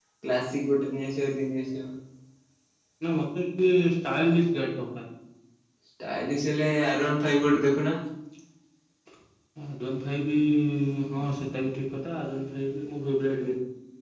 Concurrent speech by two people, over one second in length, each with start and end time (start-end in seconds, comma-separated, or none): none